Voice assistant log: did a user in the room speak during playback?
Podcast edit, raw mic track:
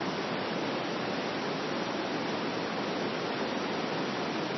No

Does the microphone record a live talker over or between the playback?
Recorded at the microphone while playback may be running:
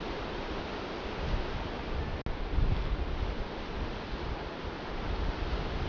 No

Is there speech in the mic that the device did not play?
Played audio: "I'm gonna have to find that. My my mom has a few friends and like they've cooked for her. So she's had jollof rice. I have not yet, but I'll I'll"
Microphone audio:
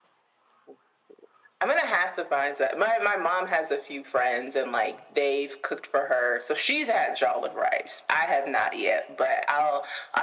No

